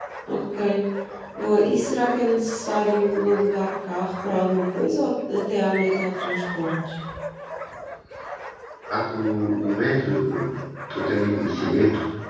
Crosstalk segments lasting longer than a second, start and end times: none

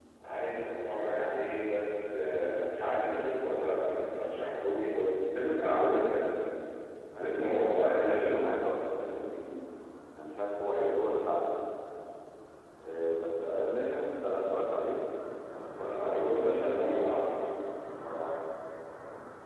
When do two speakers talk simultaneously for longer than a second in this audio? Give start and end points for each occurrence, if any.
7.2-8.5, 15.8-17.4

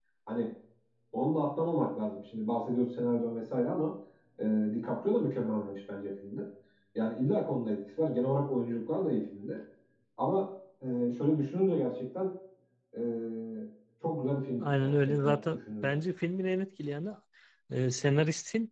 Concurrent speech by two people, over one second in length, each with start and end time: 14.6-15.9

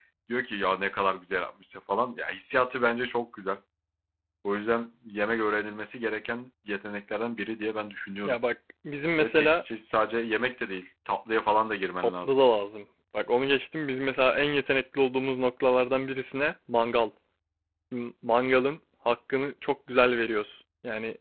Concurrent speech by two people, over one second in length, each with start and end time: none

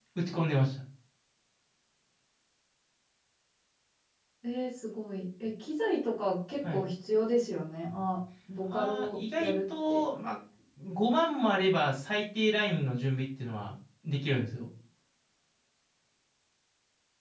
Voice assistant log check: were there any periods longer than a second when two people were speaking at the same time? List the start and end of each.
8.6-10.0

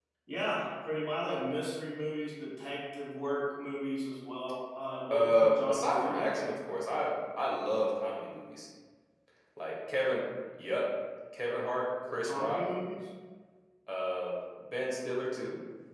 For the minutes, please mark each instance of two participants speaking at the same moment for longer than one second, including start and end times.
5.1-6.4

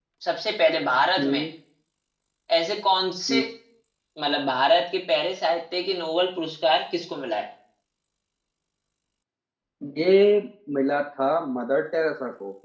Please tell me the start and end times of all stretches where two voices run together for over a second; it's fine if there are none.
none

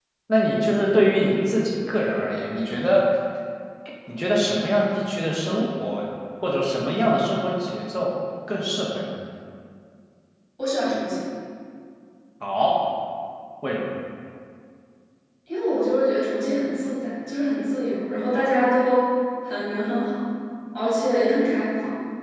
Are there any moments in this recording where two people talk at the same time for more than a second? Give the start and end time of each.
none

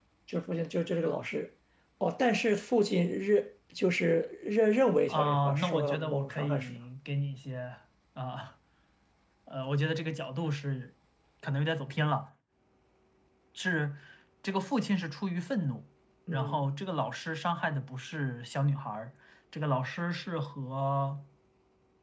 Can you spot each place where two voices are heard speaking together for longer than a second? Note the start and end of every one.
5.1-6.8

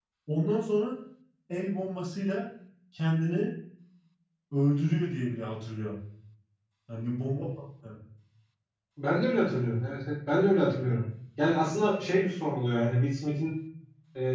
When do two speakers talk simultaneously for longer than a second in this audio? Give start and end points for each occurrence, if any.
none

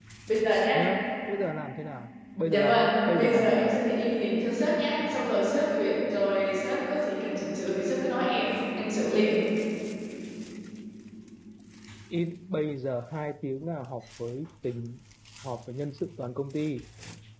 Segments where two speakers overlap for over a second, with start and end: 2.4-3.8

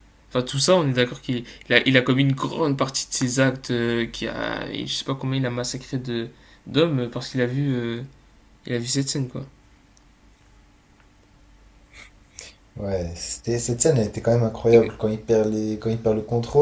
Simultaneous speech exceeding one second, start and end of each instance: none

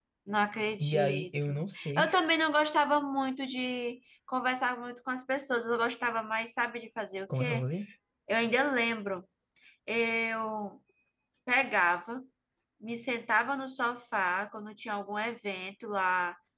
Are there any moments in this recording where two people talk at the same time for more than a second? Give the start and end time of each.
0.8-2.1

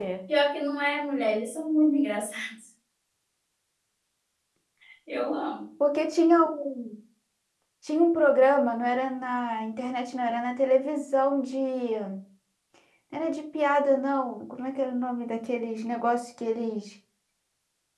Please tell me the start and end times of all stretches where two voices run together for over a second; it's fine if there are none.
none

